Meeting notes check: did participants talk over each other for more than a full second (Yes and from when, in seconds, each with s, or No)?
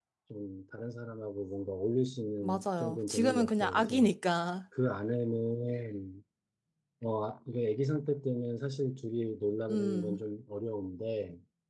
Yes, from 2.4 s